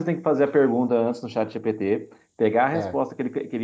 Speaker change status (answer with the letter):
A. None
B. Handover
A